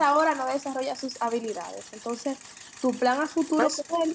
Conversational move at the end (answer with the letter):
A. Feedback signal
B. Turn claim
A